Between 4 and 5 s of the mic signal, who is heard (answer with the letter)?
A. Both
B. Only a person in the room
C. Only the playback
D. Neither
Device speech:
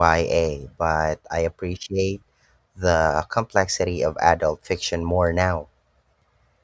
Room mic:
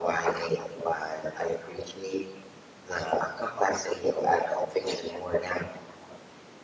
C